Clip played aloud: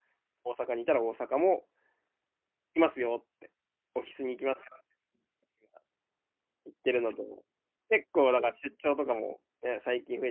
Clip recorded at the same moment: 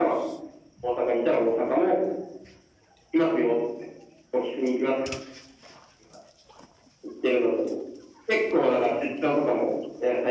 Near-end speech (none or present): none